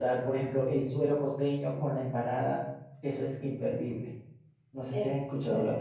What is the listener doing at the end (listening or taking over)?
taking over